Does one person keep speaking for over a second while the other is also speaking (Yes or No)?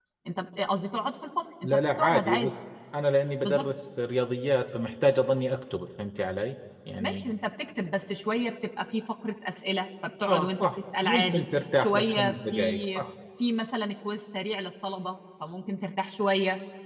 Yes